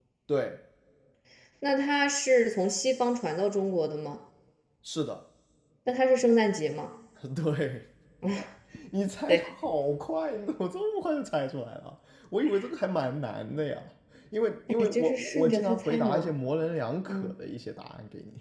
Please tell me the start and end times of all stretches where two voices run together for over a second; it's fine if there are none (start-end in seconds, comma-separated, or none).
14.8-16.3